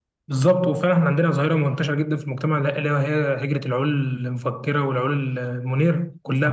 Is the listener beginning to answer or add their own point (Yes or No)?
Yes